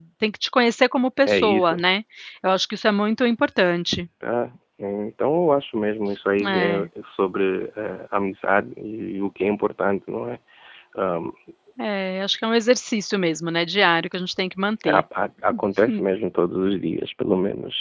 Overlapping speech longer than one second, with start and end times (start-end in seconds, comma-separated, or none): none